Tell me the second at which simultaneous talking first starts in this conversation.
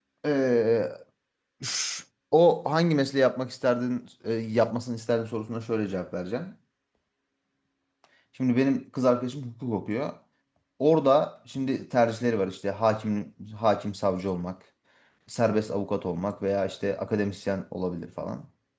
none

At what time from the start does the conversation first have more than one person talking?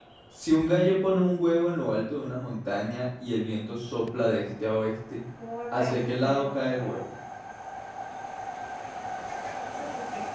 5.7 s

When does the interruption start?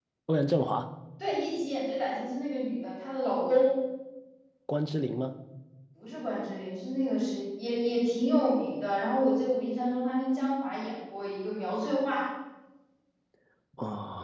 none

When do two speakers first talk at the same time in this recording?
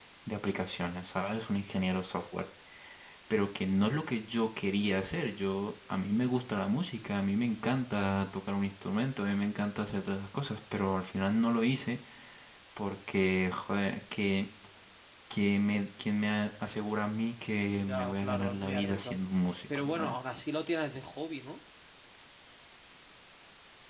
17.8 s

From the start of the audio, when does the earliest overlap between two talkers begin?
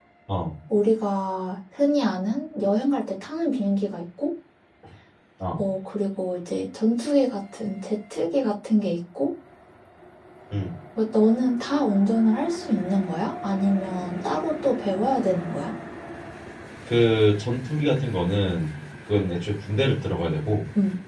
none

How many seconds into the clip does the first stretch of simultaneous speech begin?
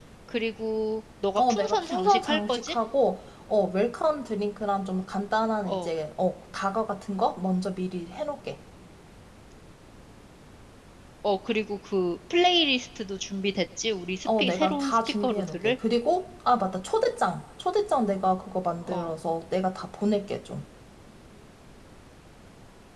1.4 s

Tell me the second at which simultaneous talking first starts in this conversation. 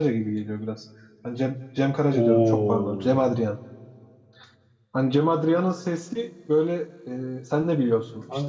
2.1 s

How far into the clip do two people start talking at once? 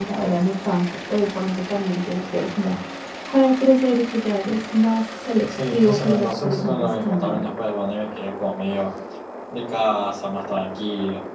5.5 s

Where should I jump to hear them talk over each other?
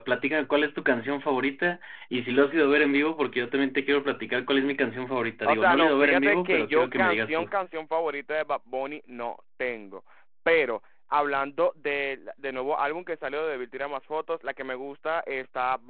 5.5 s

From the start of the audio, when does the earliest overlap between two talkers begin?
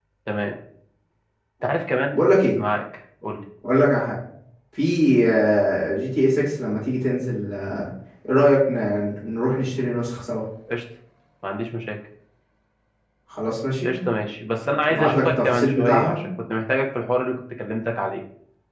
14.9 s

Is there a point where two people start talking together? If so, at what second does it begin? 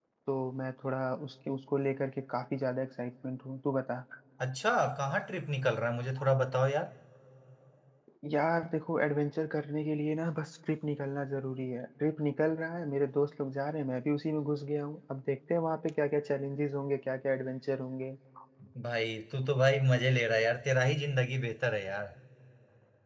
none

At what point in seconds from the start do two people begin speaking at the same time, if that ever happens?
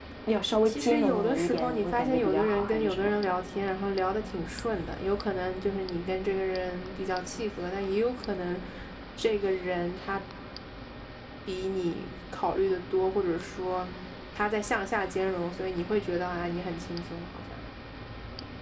0.6 s

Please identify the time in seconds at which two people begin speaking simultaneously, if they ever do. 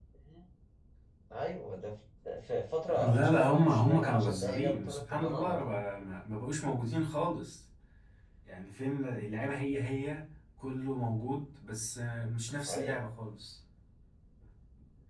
3.0 s

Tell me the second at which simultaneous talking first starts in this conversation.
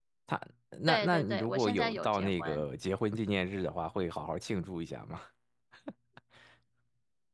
0.9 s

